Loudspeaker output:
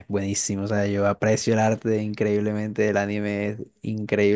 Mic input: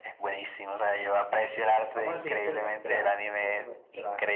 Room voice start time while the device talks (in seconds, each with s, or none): 1.9 s